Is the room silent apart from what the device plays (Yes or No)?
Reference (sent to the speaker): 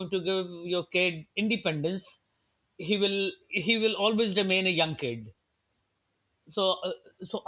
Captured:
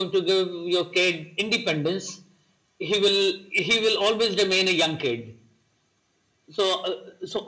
Yes